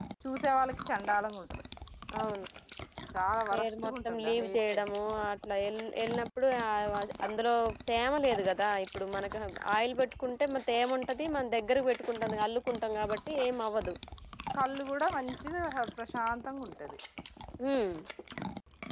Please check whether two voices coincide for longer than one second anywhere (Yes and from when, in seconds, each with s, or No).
Yes, from 3.5 s